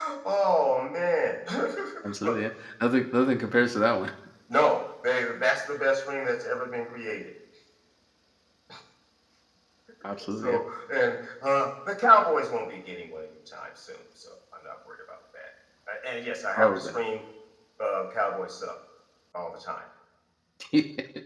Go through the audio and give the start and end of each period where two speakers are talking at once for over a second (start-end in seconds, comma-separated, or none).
none